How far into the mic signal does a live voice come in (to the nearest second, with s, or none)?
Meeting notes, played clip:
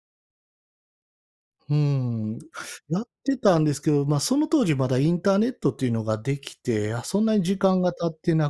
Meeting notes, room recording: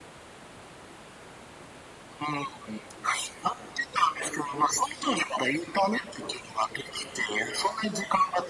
none